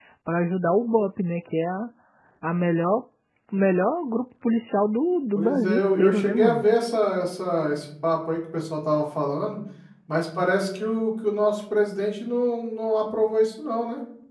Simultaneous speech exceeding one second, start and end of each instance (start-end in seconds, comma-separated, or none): 5.3-6.6